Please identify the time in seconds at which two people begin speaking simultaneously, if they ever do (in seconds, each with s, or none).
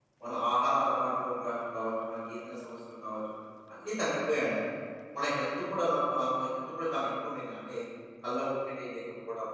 none